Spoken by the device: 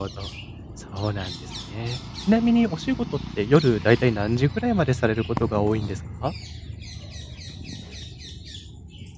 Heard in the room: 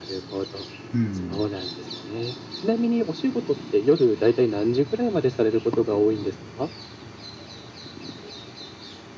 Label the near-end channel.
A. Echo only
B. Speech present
B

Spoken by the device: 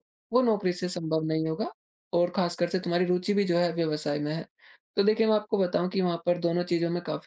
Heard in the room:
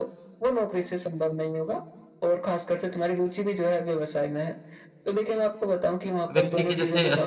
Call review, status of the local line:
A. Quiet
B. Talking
B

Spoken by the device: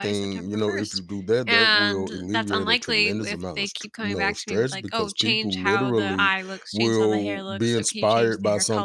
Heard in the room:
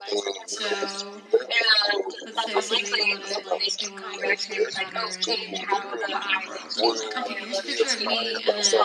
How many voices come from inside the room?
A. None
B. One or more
B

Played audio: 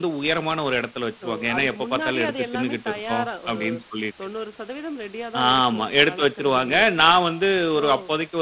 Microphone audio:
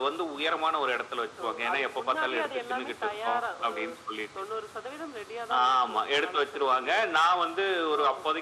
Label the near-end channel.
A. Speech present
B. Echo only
B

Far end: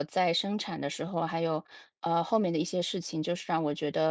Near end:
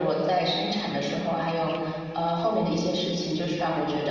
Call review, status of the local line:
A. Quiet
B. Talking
A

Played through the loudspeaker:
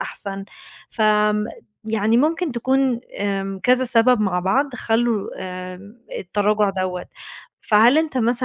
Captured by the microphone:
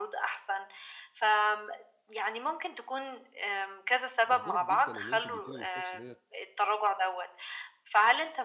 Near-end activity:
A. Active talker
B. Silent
A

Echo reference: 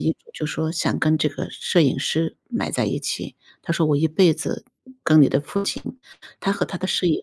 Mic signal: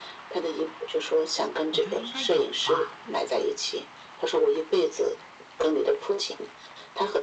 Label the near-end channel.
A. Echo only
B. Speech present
B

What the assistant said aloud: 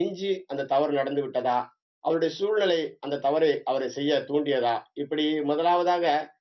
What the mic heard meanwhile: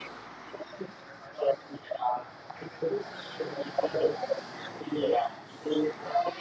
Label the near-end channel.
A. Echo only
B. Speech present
A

